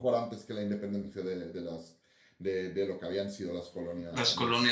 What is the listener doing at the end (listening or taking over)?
taking over